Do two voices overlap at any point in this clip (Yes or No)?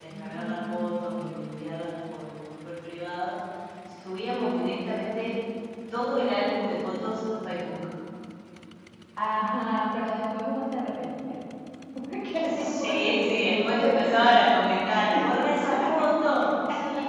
Yes